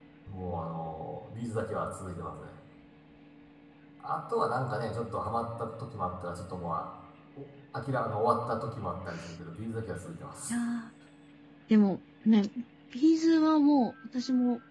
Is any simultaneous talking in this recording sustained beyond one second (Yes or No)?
No